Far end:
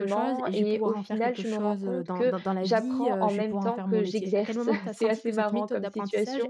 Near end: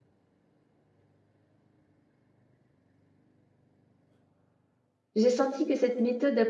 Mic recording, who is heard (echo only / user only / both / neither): user only